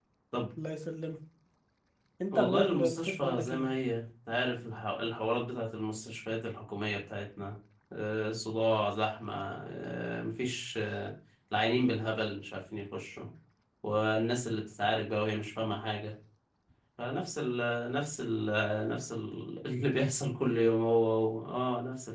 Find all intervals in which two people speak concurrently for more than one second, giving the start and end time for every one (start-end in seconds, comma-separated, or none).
2.3-3.7